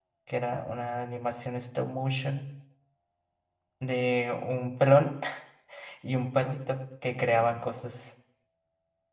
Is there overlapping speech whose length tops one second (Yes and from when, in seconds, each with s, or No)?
No